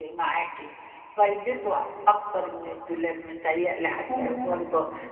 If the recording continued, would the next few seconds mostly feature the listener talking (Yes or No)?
No